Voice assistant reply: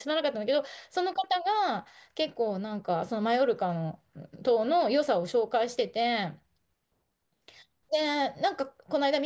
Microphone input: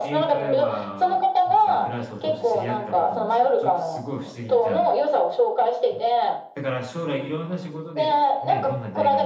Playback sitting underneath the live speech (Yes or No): No